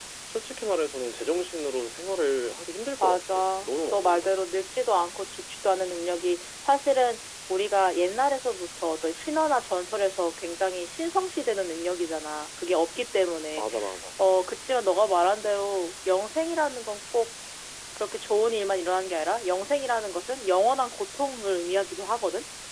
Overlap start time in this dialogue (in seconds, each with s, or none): 3.0 s